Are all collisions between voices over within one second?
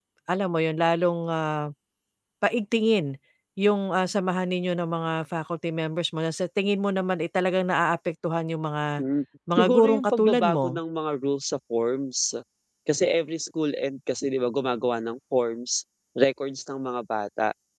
No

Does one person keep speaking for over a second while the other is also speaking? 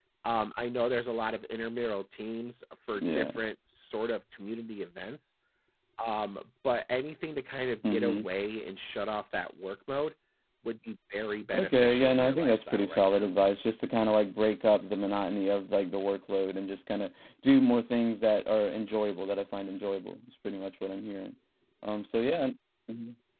Yes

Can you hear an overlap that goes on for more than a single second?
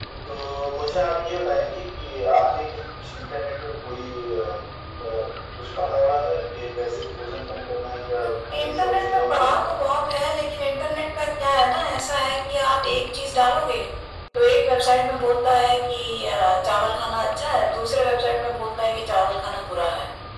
Yes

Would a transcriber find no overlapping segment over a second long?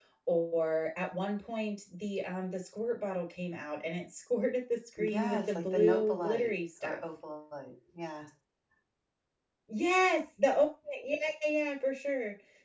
No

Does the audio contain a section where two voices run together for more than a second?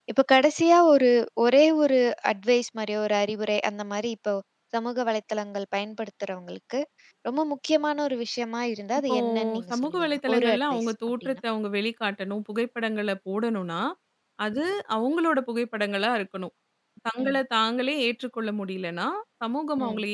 Yes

